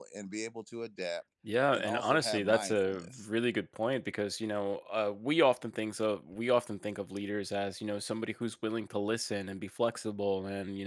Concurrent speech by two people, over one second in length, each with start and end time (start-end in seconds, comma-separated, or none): 1.7-3.3